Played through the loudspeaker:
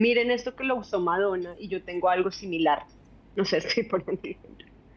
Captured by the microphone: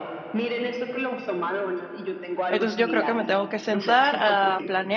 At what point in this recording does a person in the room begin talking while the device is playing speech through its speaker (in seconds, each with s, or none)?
2.5 s